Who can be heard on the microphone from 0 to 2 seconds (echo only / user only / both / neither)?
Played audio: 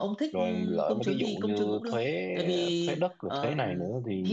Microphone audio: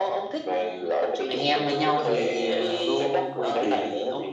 both